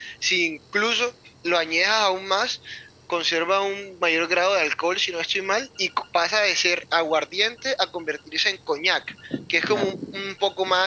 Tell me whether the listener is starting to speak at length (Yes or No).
No